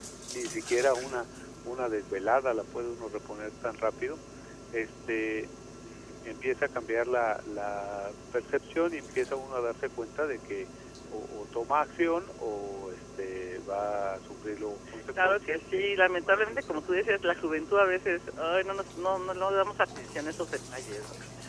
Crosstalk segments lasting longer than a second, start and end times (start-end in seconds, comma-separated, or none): 15.2-17.1